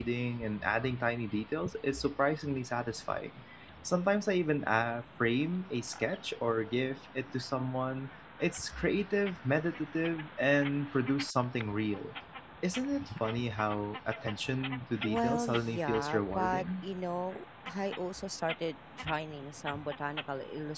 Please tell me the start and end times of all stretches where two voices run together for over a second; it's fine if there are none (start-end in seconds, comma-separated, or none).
15.0-16.8